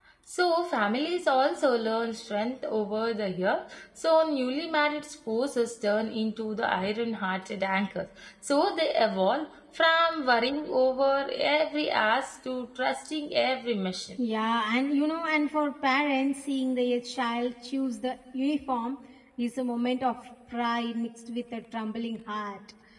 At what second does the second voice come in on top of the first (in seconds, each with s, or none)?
none